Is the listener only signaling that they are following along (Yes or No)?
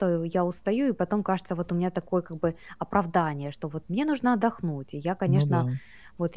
Yes